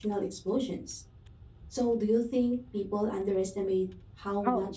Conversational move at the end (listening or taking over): taking over